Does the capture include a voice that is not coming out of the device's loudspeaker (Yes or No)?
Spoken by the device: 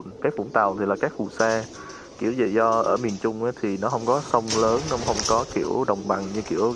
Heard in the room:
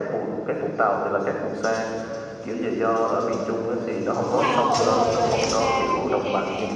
Yes